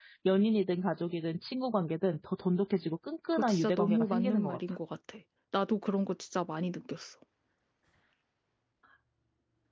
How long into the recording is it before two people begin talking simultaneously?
3 s

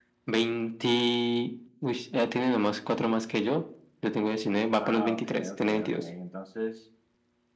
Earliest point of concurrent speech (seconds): 5 s

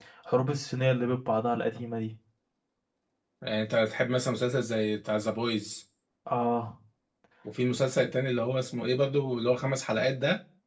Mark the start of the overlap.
none

